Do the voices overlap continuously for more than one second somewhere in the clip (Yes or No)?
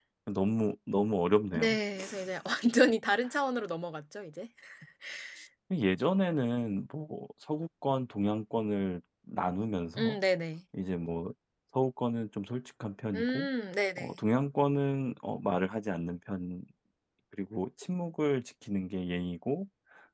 No